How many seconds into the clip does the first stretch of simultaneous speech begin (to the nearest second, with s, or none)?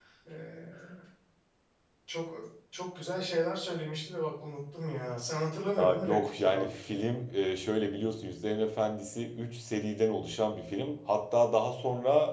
6 s